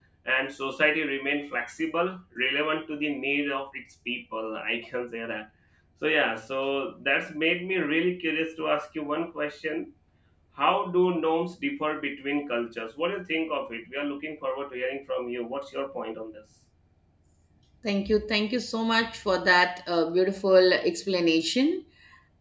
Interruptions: none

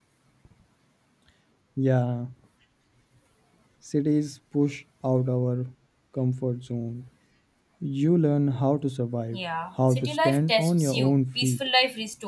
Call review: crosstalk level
present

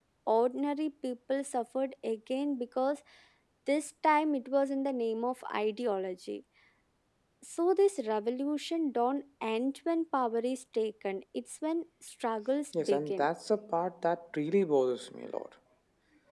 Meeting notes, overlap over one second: none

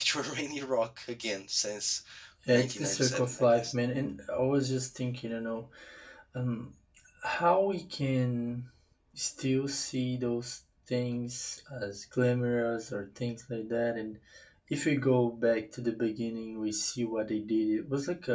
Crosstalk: present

